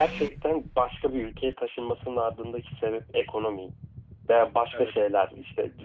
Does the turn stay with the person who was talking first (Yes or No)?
Yes